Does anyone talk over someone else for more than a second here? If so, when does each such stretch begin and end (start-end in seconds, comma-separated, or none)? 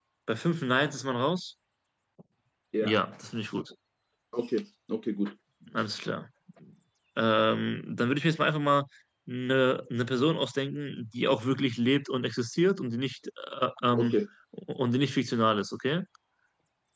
none